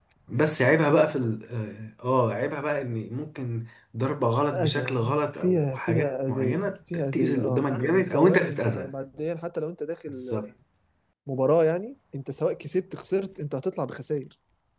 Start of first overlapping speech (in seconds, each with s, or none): 4.5 s